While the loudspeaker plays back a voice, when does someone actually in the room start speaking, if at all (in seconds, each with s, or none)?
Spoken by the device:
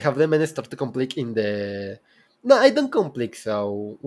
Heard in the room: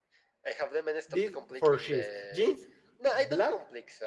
1.1 s